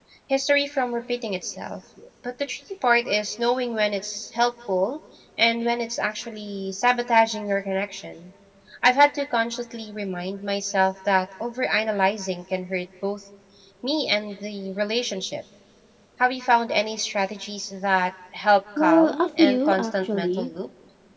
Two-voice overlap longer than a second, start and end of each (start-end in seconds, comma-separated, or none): 18.8-20.5